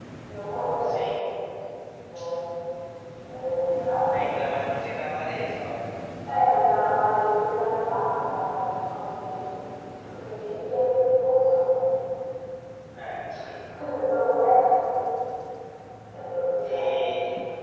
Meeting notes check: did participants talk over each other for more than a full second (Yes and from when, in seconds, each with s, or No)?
No